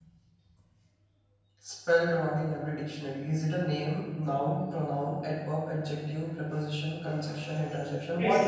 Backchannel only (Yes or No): No